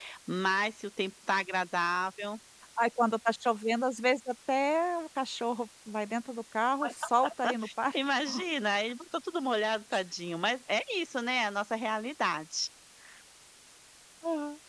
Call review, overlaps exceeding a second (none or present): none